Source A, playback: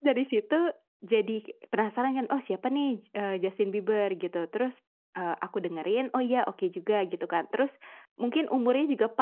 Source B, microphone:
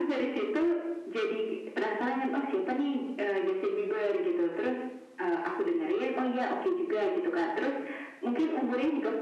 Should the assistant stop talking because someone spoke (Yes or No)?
No